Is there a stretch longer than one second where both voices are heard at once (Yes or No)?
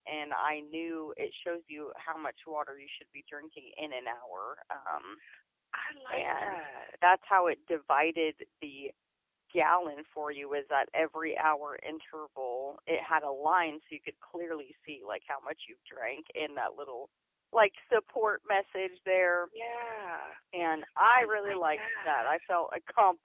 Yes